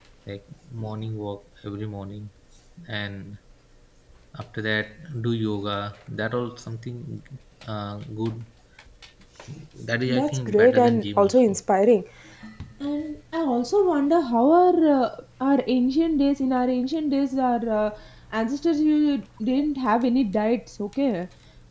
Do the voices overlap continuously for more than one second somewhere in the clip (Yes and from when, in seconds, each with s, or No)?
Yes, from 10.1 s